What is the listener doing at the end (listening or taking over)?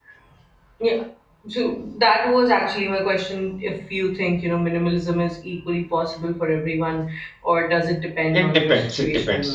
taking over